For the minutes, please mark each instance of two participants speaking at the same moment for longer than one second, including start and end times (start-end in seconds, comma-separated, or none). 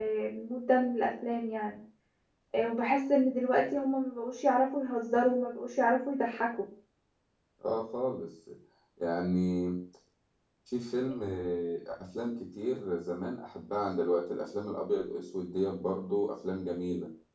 none